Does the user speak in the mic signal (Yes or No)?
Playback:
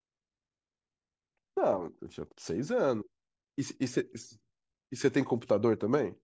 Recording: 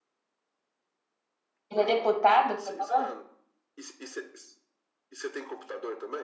Yes